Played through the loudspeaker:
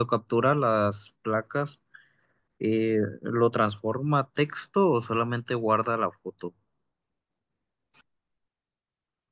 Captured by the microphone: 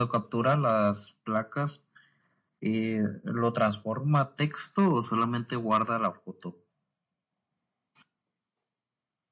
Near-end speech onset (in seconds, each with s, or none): none